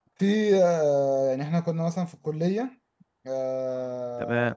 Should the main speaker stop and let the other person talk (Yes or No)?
No